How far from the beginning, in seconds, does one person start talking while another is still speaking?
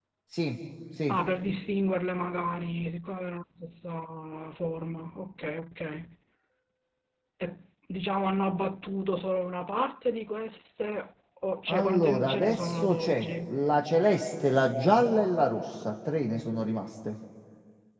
11.7 s

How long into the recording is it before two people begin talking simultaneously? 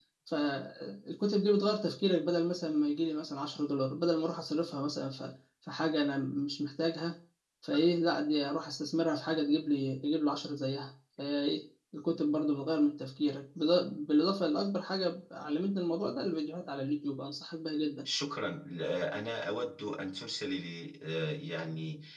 none

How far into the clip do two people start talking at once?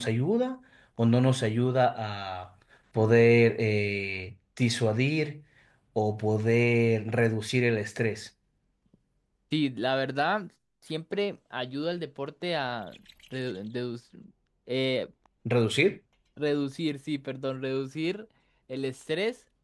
none

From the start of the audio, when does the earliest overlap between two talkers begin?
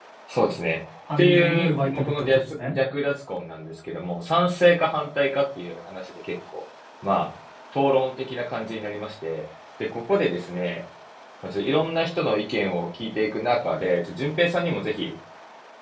1.2 s

